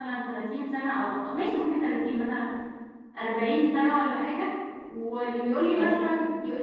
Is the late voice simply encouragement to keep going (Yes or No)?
Yes